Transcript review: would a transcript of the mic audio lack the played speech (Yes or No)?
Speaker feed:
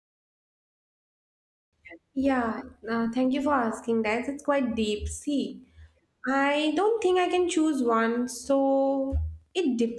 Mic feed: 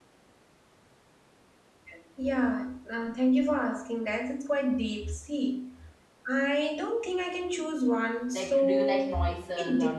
No